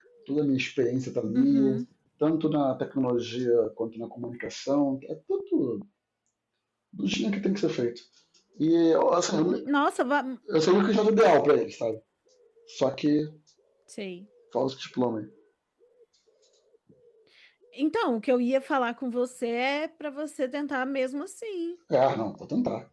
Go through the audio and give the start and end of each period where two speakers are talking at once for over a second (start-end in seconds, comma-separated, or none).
none